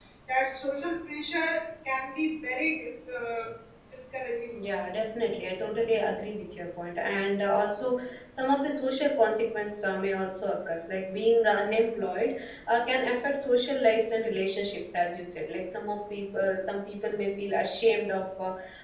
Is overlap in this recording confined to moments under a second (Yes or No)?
Yes